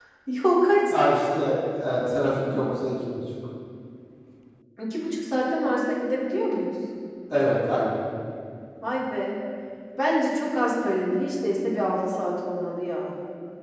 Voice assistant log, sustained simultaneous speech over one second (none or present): none